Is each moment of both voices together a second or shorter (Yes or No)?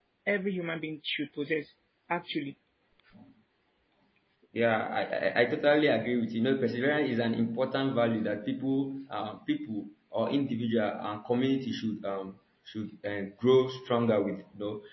Yes